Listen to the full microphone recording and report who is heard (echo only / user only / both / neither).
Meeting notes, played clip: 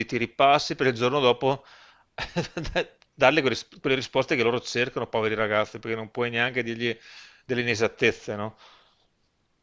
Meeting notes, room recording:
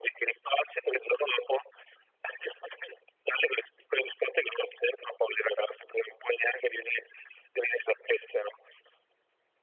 echo only